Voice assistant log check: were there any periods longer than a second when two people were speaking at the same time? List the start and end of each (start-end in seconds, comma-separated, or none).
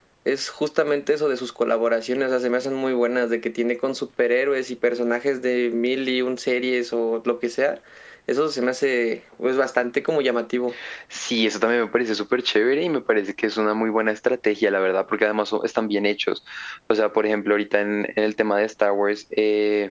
none